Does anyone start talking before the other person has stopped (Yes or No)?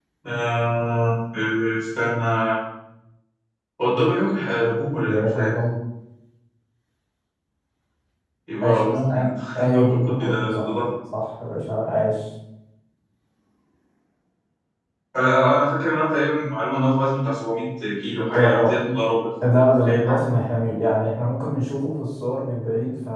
Yes